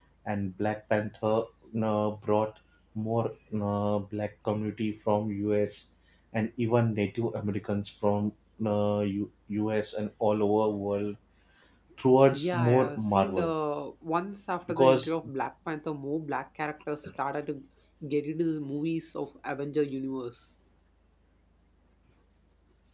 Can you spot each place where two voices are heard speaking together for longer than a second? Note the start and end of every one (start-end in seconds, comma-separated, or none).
12.3-13.5